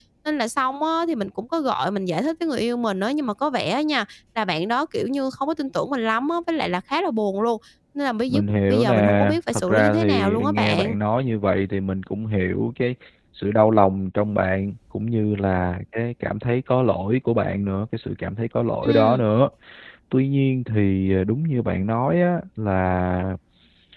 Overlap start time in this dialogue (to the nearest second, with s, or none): 8 s